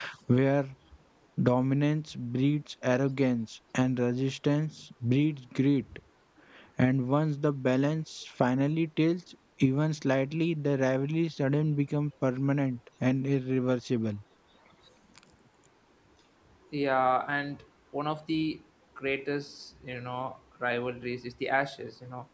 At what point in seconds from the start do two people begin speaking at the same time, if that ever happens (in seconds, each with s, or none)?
none